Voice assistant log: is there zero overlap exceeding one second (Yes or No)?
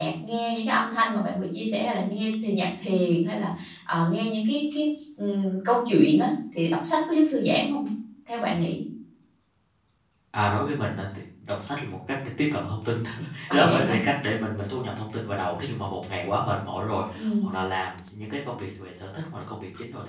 Yes